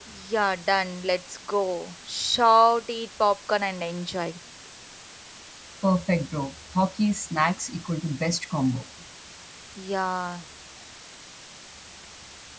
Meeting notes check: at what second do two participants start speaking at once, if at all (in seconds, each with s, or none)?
none